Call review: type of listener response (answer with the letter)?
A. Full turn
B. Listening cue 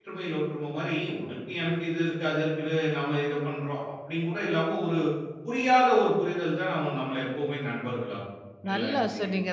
A